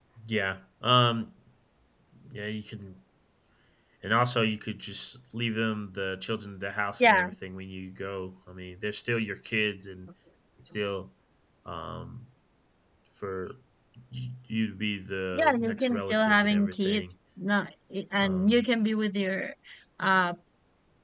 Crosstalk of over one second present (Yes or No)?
Yes